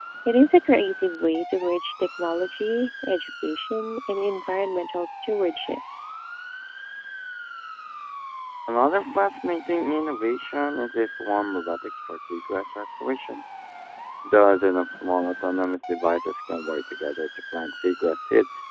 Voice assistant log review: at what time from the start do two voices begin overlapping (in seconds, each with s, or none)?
none